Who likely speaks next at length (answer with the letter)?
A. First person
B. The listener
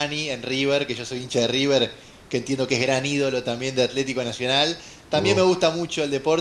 A